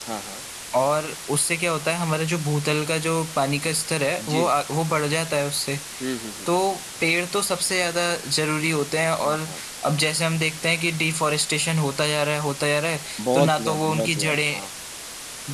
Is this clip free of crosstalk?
No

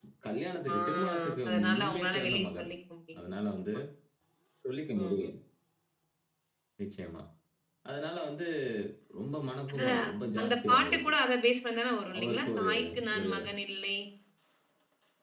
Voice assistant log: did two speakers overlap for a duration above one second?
Yes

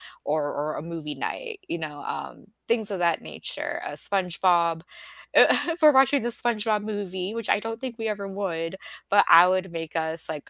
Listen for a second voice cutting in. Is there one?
No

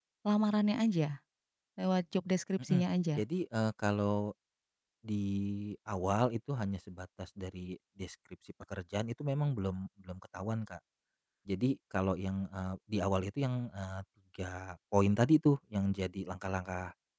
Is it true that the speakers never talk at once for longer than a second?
Yes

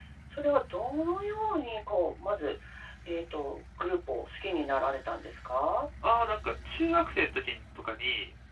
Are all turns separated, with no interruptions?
Yes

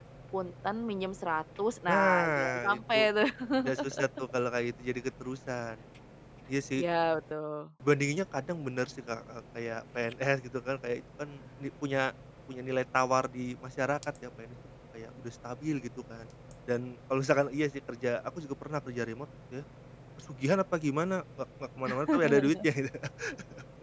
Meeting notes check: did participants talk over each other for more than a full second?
Yes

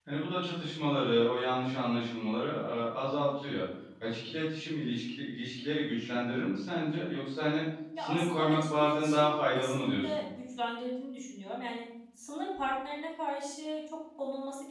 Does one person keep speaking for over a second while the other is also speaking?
Yes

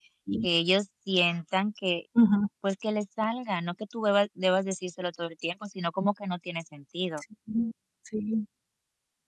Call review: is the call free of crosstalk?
Yes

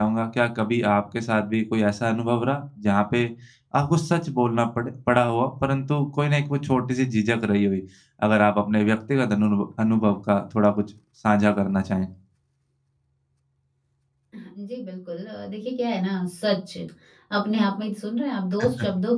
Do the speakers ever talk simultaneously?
No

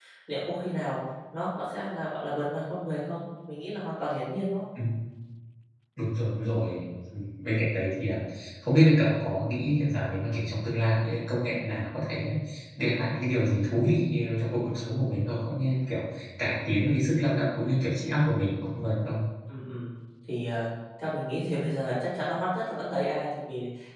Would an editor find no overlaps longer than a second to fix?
Yes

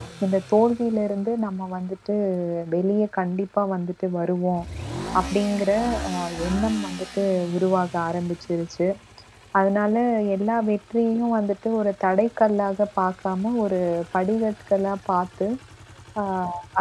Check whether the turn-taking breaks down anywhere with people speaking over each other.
No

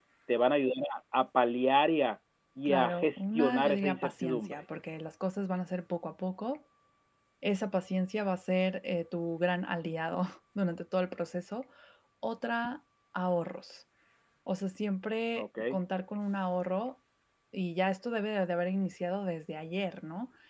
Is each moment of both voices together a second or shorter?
No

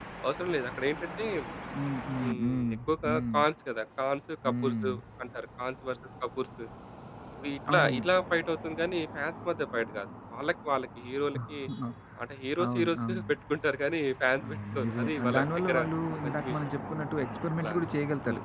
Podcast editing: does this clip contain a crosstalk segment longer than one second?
Yes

